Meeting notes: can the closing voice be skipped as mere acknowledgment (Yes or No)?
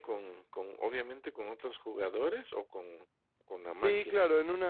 No